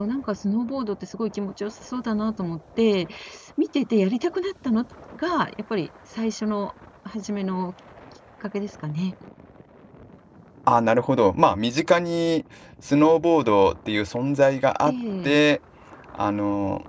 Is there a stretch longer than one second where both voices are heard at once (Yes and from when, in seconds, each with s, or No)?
No